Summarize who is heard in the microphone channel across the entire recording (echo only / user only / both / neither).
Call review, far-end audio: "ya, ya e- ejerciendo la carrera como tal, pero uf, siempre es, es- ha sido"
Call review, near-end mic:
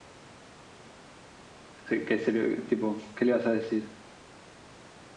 user only